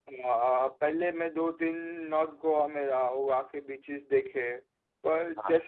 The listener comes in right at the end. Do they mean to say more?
No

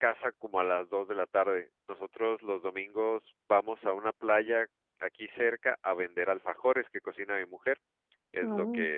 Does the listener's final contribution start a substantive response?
No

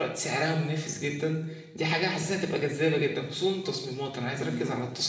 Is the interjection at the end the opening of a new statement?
No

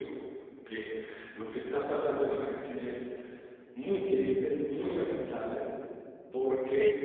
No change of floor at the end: Yes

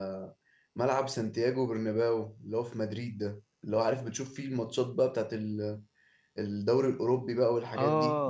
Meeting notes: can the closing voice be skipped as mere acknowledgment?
No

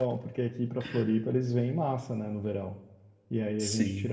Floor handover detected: No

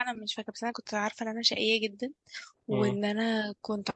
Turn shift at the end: No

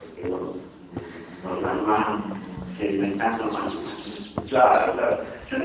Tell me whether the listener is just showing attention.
No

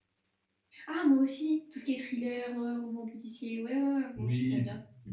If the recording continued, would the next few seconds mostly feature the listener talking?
Yes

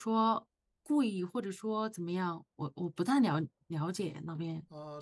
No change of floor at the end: No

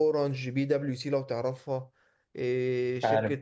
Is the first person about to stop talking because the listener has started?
No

